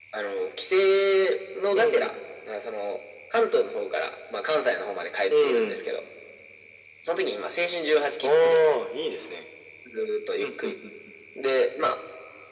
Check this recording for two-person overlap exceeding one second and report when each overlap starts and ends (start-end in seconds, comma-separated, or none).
none